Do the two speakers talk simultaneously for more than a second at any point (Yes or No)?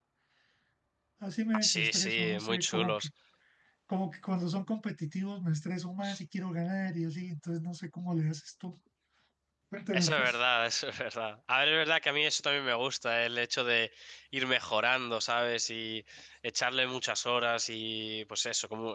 Yes